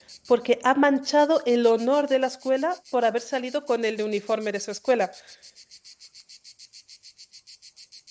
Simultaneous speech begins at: none

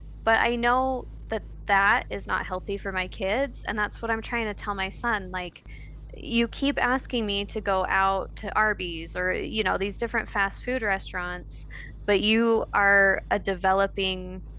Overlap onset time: none

